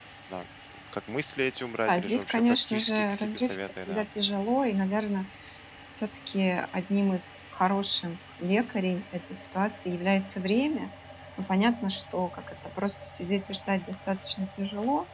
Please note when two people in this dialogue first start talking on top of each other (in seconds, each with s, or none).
1.9 s